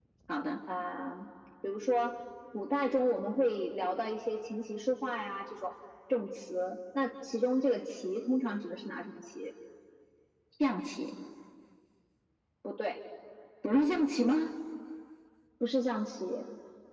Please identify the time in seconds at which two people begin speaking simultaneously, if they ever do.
none

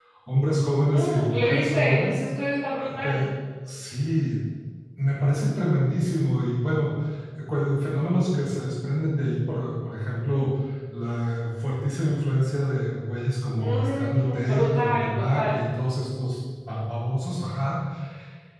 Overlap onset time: 0.9 s

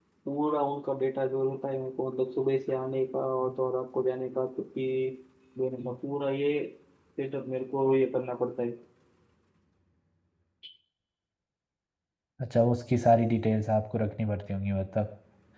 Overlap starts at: none

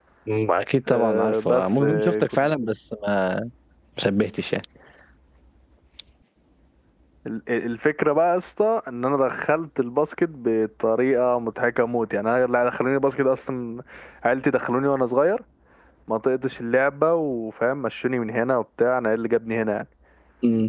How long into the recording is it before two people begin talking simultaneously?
0.9 s

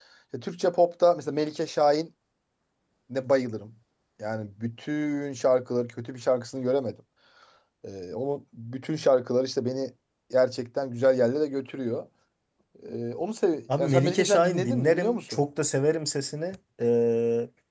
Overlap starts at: 13.7 s

